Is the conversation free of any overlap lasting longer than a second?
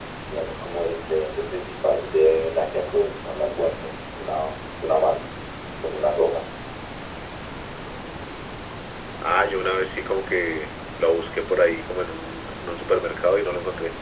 Yes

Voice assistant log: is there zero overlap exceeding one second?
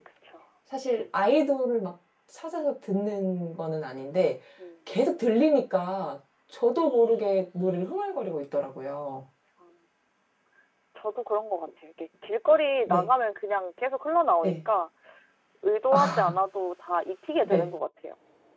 Yes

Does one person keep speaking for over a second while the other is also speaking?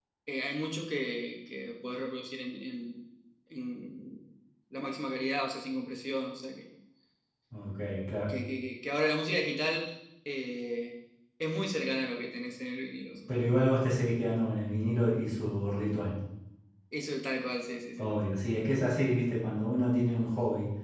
No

